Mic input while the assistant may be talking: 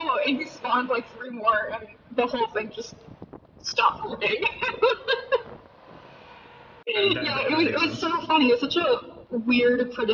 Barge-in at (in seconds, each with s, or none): 6.9 s